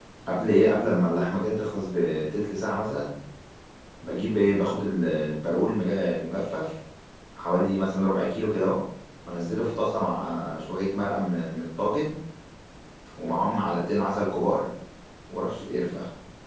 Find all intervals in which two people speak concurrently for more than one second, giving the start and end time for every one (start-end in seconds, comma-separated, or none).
none